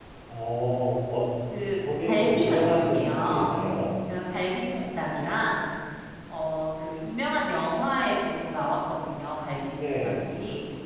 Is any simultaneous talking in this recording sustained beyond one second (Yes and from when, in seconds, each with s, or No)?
Yes, from 2.1 s